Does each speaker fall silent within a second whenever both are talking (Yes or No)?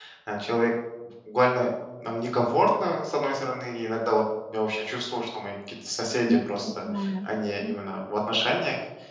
No